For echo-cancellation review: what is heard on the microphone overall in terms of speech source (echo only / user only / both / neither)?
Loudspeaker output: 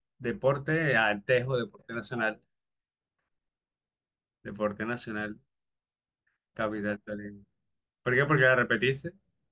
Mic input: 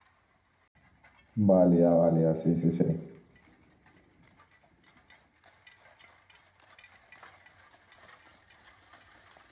user only